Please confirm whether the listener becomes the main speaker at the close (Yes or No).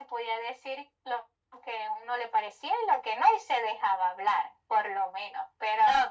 Yes